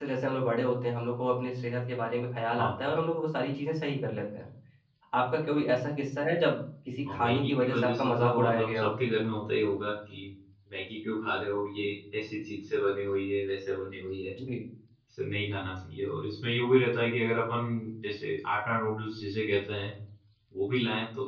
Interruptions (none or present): present